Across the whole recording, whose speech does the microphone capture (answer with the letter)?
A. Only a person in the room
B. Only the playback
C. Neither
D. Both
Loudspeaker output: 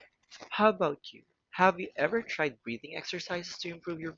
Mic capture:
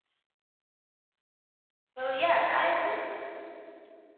A